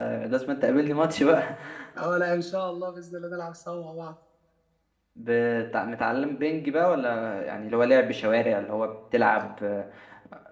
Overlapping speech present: No

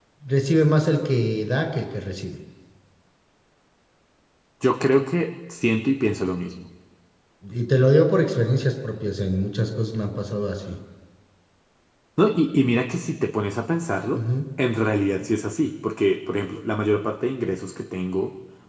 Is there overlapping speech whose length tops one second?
No

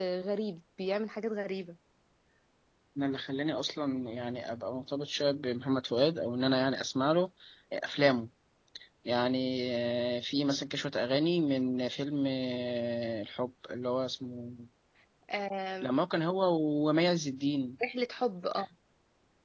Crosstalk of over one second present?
No

